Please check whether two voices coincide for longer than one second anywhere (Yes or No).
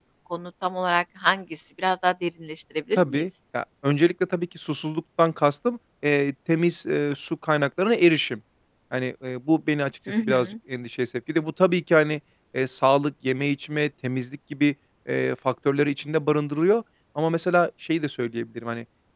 No